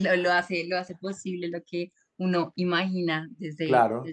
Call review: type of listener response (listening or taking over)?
taking over